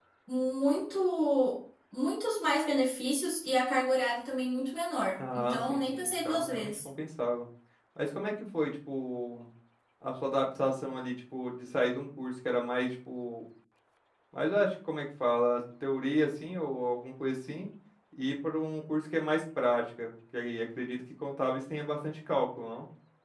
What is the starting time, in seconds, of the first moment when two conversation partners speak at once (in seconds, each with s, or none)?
5.2 s